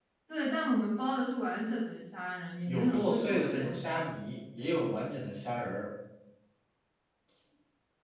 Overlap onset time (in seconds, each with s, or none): 2.7 s